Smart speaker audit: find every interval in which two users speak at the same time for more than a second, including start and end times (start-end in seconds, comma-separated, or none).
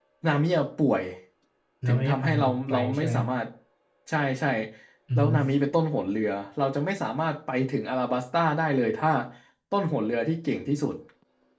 1.9-3.1